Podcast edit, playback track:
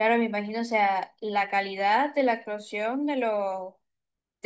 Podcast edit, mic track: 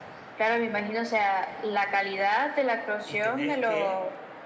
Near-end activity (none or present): present